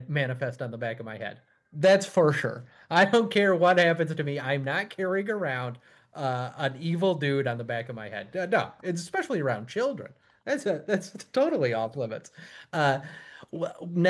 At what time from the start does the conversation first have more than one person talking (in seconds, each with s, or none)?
none